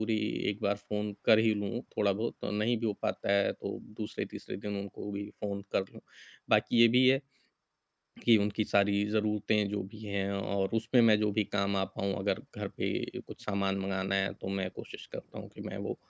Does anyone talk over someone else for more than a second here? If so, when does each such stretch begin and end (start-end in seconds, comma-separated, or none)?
none